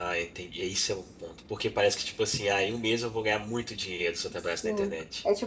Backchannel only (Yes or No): No